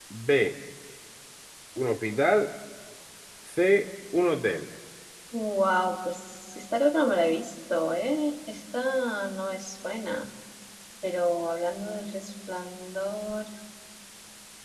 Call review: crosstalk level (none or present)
none